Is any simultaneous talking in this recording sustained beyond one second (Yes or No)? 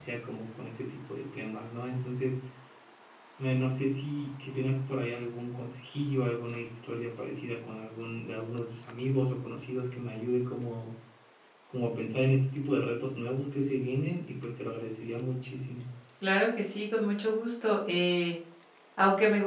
No